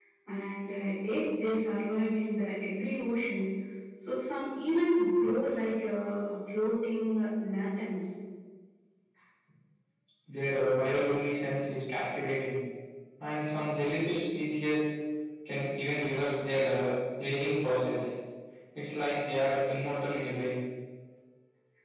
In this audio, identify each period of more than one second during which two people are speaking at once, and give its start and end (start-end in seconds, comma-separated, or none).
none